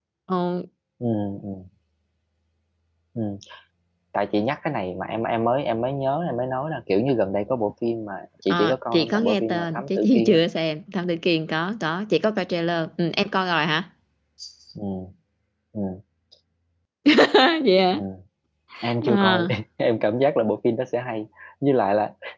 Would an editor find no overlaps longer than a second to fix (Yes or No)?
No